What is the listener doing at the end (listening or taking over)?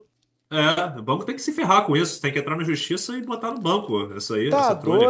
taking over